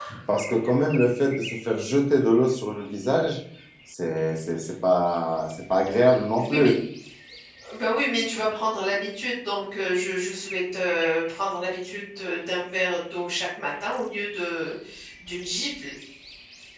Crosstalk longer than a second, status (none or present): none